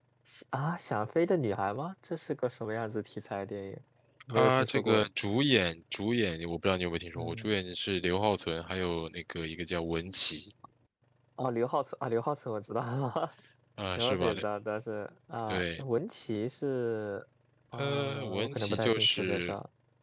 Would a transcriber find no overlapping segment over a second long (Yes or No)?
No